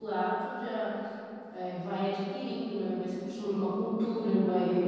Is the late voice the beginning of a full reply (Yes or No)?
No